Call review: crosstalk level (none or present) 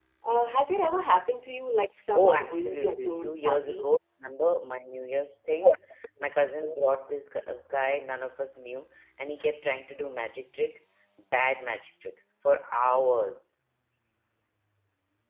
present